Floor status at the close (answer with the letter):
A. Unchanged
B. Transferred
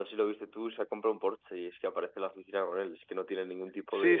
B